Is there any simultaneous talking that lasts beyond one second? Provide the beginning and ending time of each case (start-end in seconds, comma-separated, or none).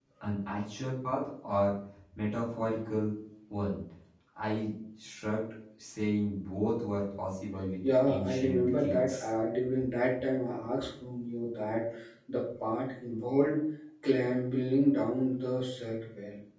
8.1-9.3